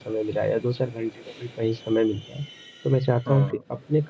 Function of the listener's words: listening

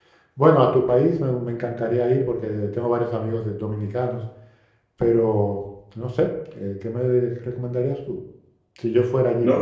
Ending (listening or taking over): taking over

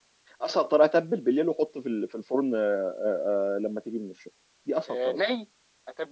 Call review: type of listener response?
taking over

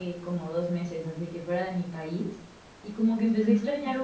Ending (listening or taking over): listening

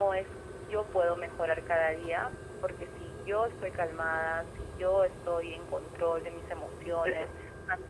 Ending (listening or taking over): listening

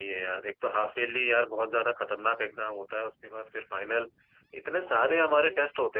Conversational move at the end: listening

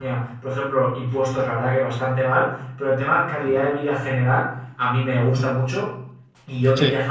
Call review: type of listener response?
listening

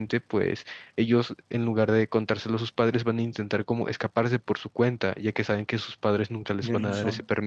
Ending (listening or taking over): listening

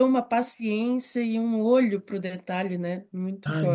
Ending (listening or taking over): taking over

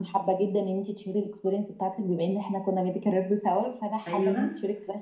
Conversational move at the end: listening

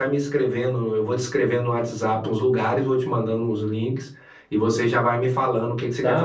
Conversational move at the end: taking over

